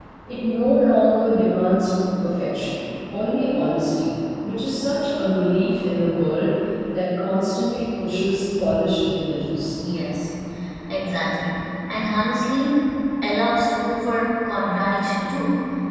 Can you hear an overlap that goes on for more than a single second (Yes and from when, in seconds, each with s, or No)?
No